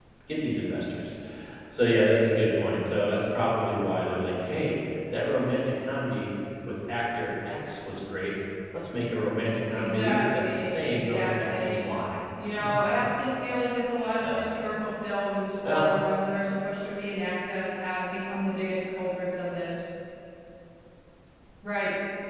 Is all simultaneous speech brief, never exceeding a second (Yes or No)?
No